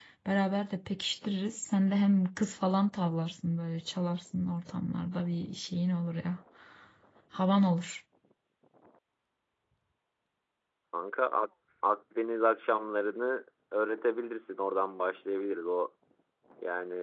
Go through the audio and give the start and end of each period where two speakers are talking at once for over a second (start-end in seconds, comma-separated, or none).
none